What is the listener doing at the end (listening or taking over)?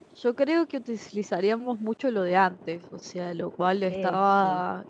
listening